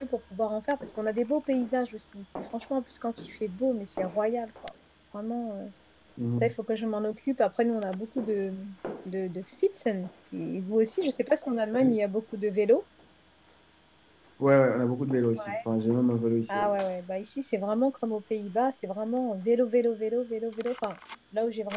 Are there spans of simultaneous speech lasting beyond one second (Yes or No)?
No